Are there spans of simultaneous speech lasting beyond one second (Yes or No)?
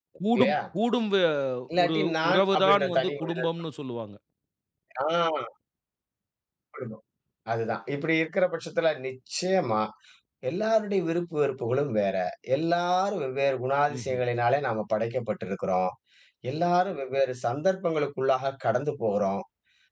Yes